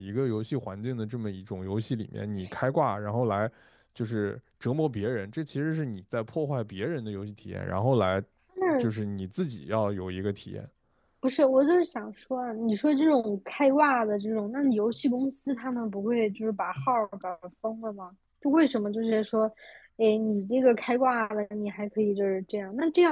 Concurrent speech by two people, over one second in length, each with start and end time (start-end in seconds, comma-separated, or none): none